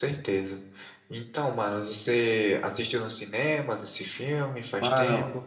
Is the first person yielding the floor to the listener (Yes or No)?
Yes